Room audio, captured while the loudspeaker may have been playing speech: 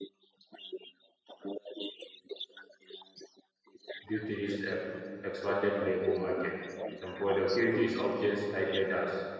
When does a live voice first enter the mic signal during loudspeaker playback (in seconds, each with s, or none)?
4.0 s